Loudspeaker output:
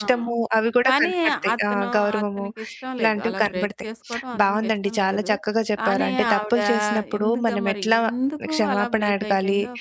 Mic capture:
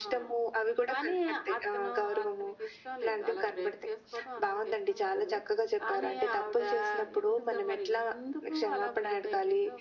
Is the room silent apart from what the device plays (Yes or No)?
Yes